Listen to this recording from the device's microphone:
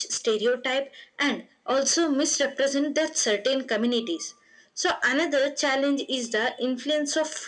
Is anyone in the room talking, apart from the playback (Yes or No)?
No